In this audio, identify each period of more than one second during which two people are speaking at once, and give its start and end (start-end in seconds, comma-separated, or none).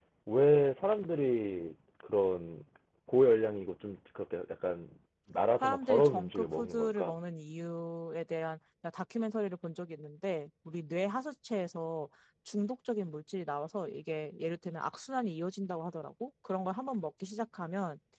5.6-7.1